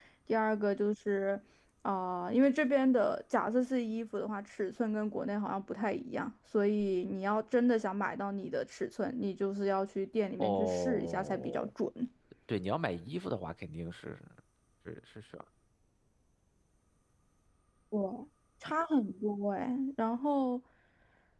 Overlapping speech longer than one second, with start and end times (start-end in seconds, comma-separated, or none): 10.4-11.7